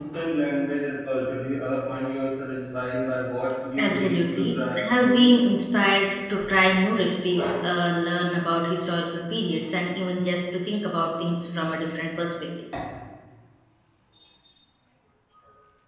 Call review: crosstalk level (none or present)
present